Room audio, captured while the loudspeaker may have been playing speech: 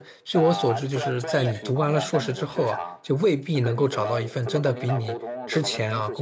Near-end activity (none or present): present